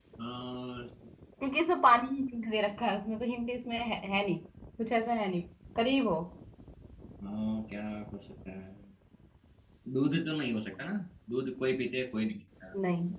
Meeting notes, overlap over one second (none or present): none